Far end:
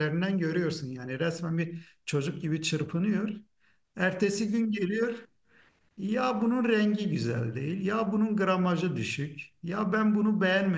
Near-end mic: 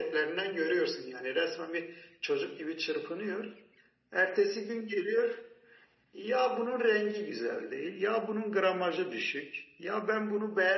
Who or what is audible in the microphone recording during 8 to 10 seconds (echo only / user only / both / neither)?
echo only